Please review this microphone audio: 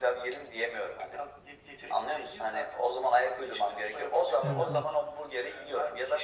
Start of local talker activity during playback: 4 s

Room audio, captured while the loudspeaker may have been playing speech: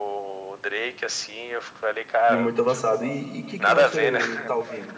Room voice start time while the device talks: 2 s

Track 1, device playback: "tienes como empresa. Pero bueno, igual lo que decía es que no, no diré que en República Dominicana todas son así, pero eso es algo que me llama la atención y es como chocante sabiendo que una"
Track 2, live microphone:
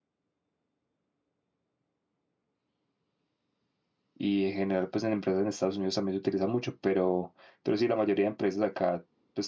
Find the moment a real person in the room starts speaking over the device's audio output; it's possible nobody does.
4 s

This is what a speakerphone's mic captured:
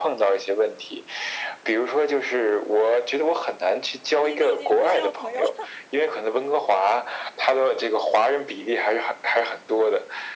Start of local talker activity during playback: 4 s

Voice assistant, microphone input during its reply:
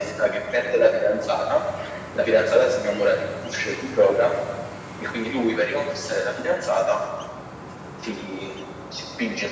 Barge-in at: none

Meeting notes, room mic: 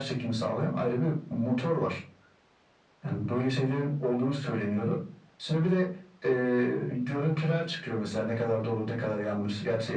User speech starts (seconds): none

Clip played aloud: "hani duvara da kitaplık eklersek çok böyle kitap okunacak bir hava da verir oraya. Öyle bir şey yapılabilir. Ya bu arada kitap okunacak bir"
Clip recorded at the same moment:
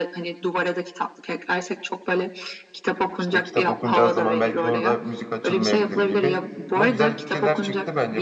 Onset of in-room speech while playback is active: 3 s

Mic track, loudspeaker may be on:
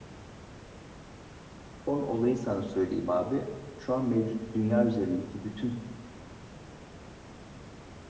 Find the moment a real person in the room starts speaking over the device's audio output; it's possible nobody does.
2 s

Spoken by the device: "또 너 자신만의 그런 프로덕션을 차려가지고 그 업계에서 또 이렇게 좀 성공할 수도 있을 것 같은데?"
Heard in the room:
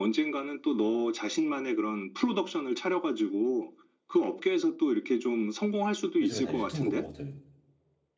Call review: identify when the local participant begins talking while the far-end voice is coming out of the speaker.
6 s

